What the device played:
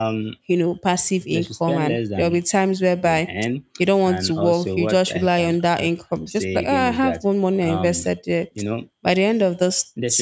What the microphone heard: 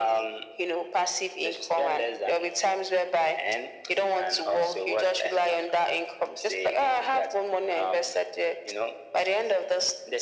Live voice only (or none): none